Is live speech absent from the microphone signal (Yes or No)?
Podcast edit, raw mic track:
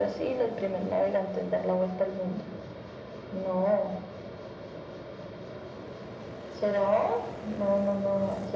Yes